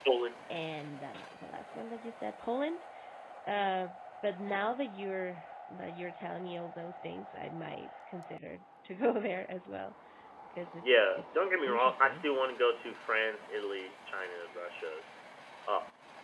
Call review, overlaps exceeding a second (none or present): present